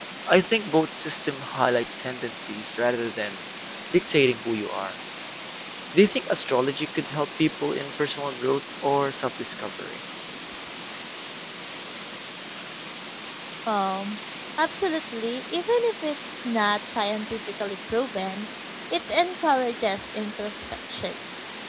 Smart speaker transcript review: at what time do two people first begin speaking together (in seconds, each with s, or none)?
none